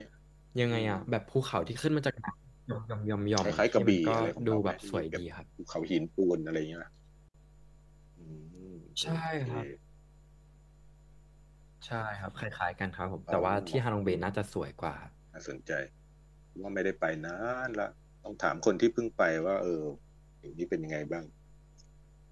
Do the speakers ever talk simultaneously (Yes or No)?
Yes